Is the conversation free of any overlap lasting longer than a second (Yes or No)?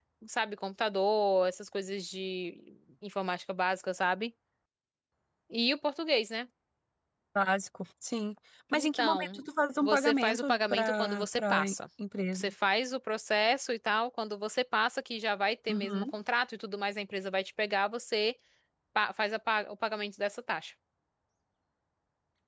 No